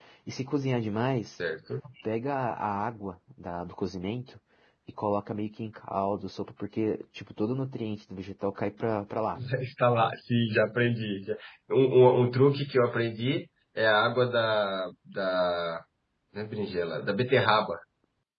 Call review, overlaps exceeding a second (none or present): none